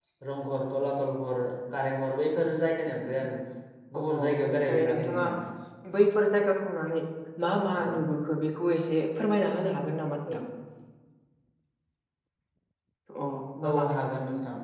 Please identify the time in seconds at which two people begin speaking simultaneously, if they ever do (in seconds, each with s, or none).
4.0 s